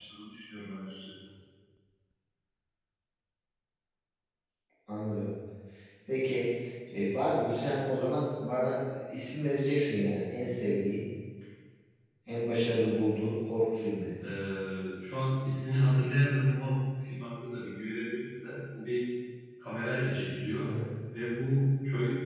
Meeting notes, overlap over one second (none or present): none